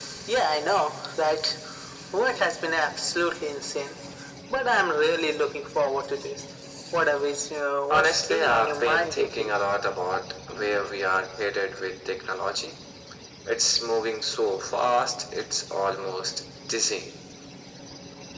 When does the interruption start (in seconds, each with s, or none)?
7.9 s